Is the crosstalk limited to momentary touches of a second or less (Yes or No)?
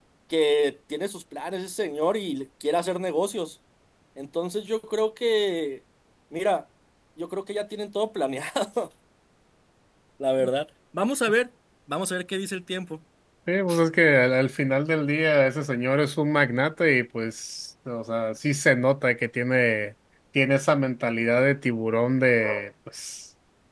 Yes